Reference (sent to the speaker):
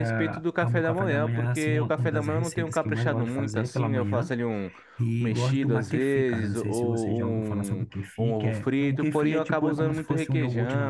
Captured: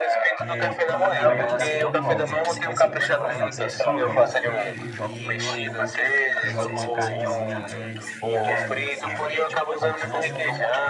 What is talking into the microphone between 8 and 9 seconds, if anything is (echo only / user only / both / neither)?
both